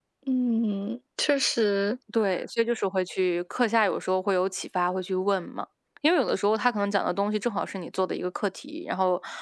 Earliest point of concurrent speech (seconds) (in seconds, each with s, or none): none